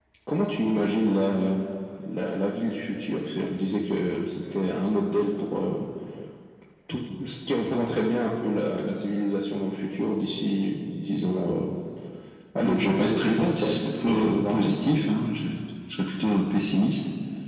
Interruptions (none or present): present